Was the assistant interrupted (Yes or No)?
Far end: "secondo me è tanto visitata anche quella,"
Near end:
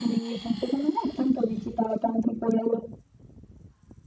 No